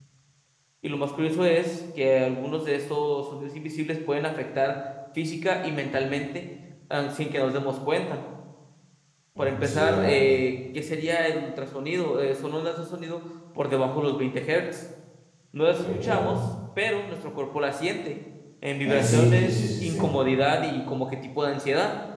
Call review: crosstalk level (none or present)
present